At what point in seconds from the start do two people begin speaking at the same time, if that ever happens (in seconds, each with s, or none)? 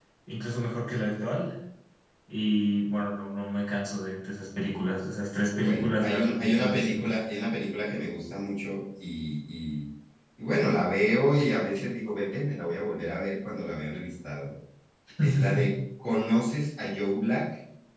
5.6 s